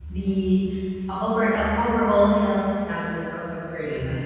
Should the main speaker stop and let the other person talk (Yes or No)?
Yes